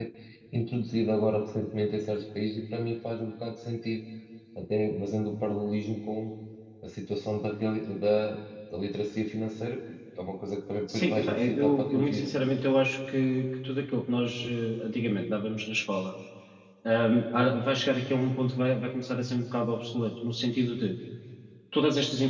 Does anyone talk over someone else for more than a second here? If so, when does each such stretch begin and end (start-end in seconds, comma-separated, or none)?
10.9-12.3